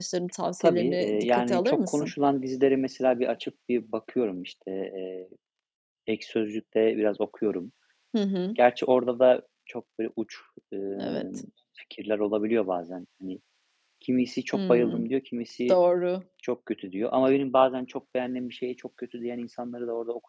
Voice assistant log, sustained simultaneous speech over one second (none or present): present